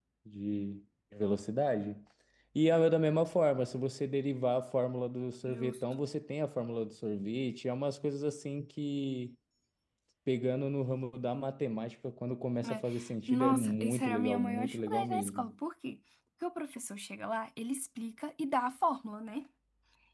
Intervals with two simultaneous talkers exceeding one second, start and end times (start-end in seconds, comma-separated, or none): 13.3-15.5